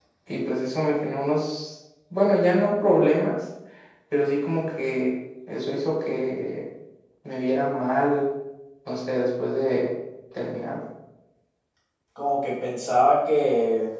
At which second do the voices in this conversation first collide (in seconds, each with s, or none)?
none